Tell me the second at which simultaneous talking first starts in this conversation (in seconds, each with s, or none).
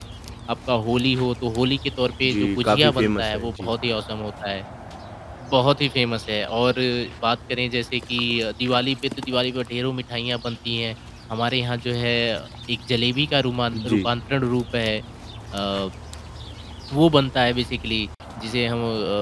2.3 s